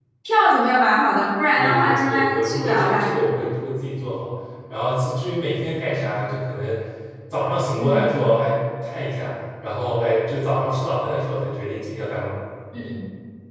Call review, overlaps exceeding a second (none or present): present